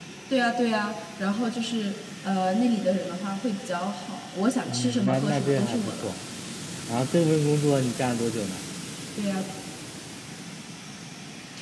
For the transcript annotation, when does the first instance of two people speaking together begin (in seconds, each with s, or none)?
4.7 s